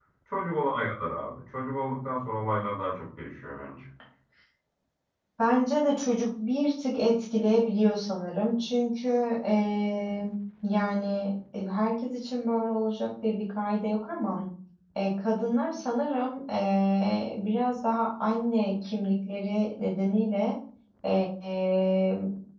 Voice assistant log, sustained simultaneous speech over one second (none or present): none